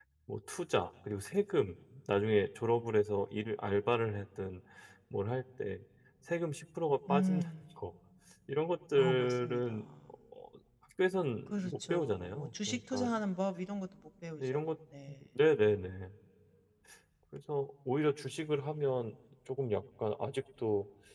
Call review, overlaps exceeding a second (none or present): present